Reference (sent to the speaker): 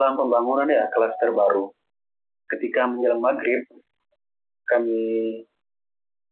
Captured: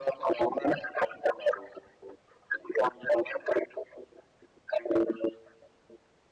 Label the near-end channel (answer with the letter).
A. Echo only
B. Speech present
A